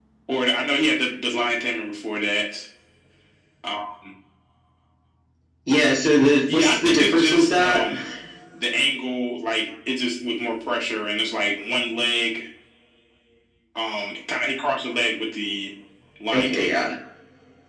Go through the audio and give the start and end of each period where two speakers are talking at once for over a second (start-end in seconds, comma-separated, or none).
6.5-7.9